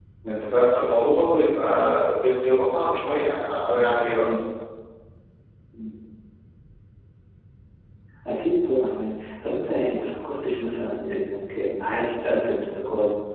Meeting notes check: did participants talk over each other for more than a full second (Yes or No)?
No